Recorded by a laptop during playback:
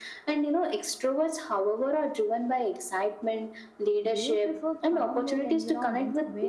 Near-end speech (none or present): present